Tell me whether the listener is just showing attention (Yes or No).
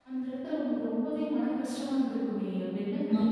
No